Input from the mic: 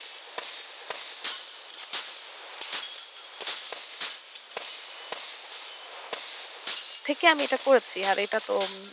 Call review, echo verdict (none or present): none